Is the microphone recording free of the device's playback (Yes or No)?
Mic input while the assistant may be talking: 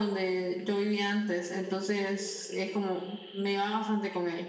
No